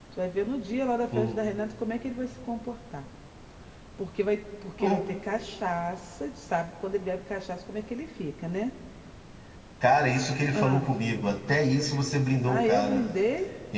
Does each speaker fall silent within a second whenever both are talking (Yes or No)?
Yes